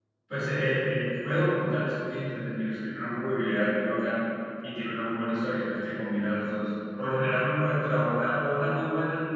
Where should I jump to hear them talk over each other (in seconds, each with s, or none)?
none